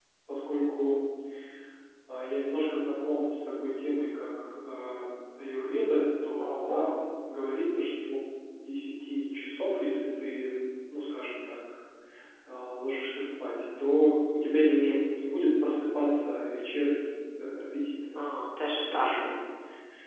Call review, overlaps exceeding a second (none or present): none